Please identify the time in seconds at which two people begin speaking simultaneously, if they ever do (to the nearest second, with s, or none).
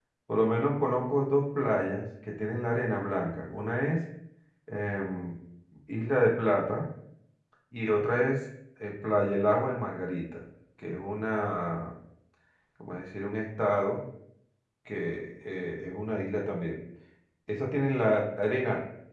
none